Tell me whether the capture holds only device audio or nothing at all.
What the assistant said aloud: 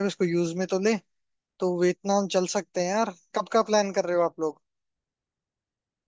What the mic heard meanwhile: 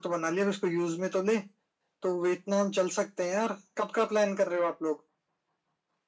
Yes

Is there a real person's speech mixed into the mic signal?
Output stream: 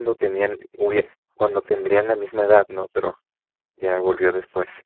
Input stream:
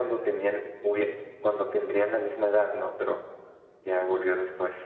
No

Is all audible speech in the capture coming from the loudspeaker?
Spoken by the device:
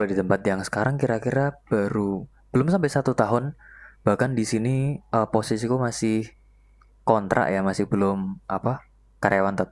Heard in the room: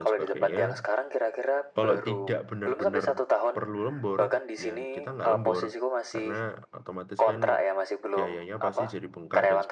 No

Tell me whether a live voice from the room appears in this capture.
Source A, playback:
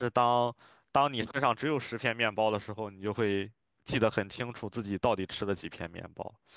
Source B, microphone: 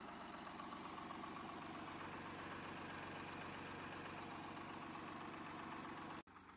No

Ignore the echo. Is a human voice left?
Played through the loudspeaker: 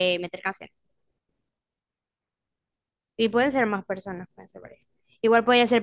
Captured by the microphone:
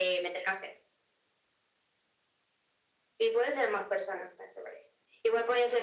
No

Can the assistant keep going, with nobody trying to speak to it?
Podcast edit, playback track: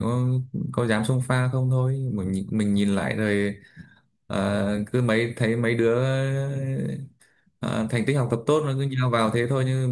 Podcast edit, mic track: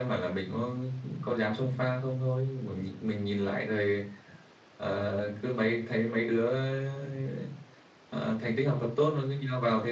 Yes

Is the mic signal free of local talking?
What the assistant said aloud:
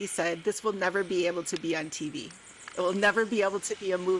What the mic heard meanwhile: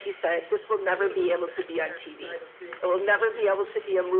No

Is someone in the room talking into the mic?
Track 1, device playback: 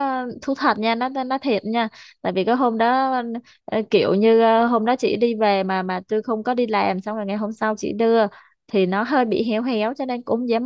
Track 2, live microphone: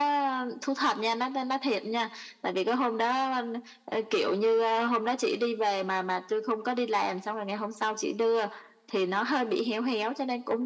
No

